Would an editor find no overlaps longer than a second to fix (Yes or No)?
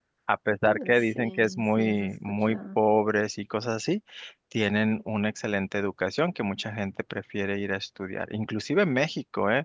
No